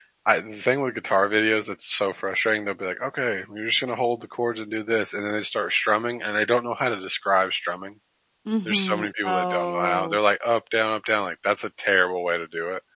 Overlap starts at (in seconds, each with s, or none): 8.7 s